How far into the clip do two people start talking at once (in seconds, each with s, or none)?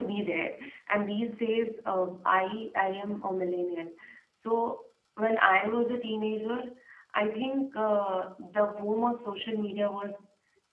none